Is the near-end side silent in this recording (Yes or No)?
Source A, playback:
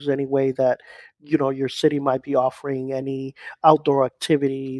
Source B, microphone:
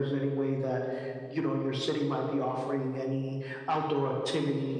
Yes